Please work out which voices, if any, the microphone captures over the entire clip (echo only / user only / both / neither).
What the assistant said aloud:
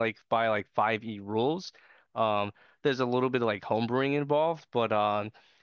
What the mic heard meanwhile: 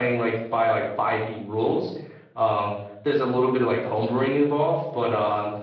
echo only